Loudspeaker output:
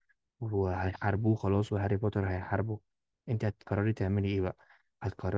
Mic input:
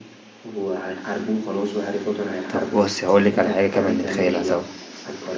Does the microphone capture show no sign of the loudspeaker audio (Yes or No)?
No